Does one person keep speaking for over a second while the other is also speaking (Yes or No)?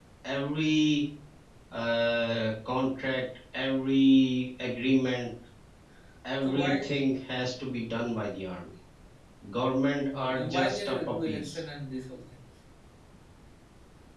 Yes